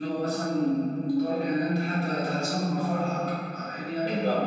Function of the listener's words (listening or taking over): listening